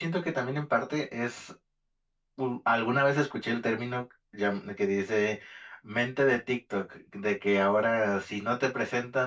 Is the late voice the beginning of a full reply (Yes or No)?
No